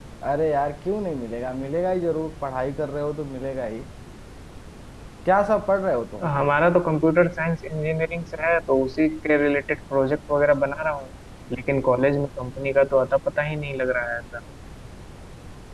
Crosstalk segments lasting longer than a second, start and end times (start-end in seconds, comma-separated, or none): none